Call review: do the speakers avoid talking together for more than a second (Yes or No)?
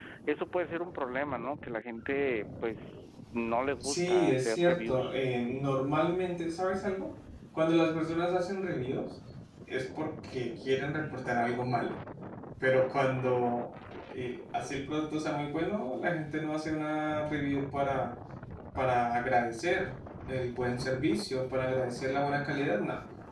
No